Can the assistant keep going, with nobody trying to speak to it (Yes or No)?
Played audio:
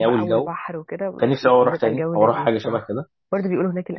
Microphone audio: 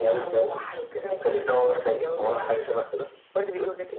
Yes